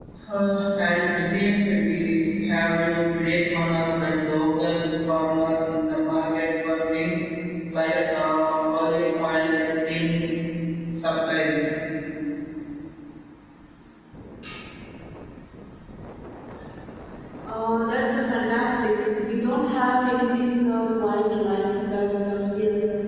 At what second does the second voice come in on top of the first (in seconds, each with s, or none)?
none